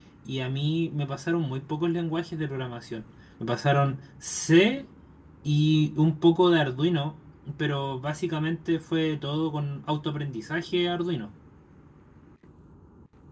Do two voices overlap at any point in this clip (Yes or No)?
No